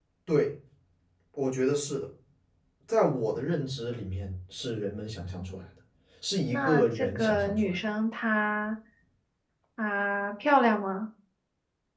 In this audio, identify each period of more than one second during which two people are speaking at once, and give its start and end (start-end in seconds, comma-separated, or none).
6.5-7.8